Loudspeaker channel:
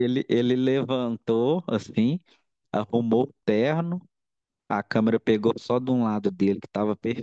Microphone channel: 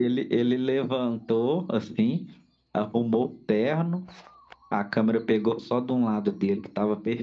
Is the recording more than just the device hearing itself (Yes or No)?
No